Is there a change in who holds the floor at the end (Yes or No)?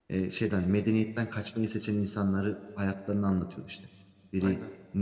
No